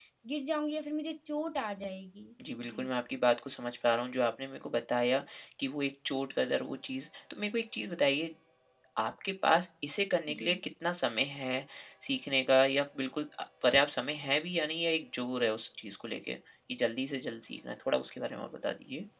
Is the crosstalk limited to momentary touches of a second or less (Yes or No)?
Yes